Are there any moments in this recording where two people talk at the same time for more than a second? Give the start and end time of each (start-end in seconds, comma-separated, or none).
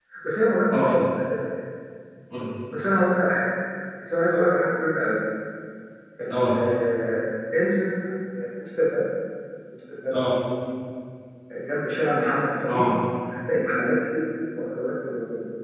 none